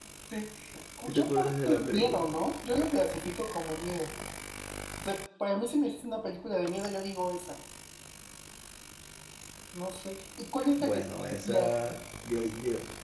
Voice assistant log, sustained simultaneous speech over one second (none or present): present